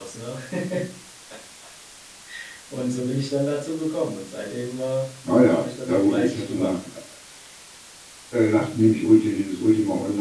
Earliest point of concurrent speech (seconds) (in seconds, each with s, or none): 5.5 s